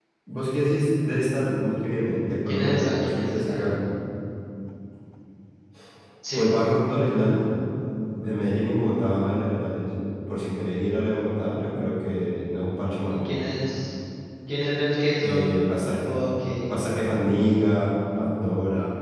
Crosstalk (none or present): present